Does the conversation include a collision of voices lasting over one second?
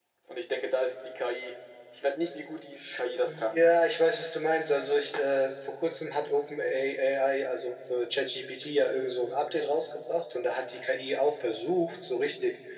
No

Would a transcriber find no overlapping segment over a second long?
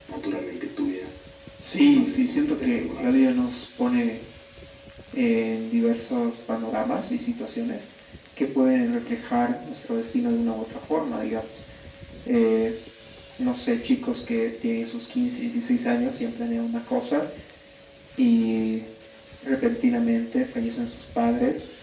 No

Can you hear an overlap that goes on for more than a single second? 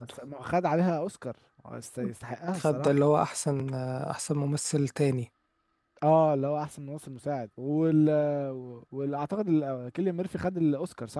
No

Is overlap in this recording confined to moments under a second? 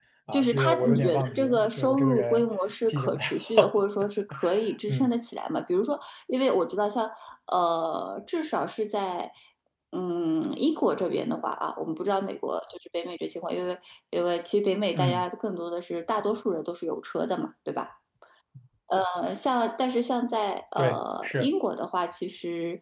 No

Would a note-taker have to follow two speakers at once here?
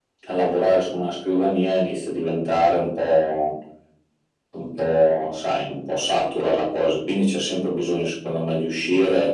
No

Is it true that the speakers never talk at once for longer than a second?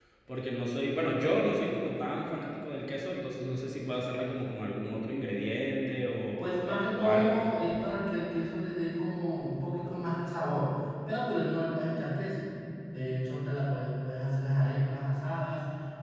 Yes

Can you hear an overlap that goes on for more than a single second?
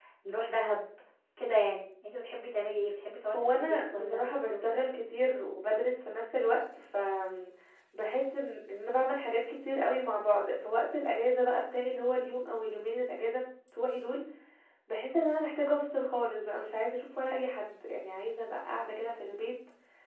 Yes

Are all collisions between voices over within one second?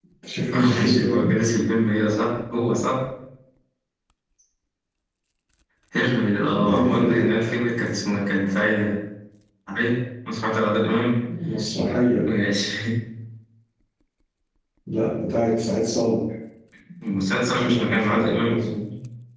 No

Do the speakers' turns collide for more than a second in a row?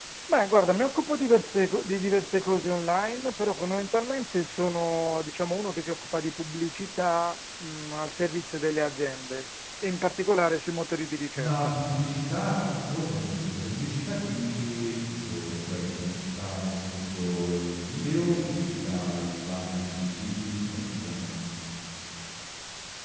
No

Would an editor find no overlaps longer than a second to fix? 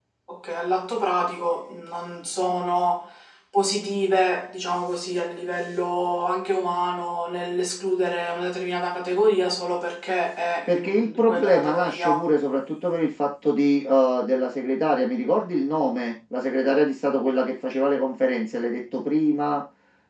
No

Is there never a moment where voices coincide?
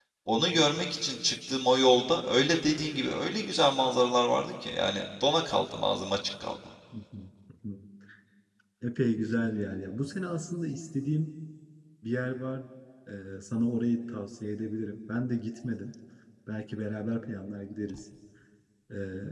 Yes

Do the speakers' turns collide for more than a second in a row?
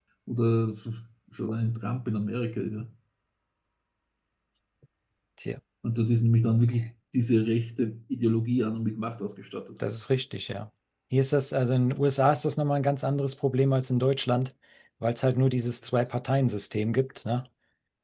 No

